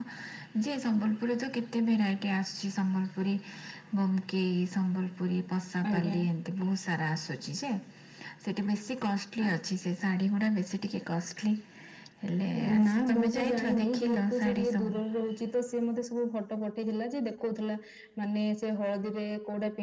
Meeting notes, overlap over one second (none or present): present